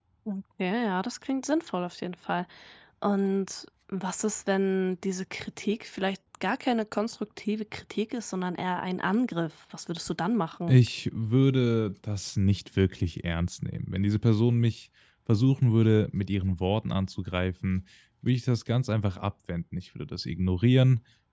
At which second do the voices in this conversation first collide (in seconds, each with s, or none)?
none